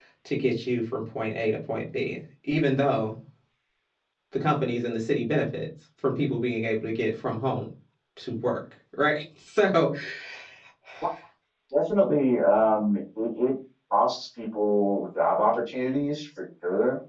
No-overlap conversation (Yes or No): Yes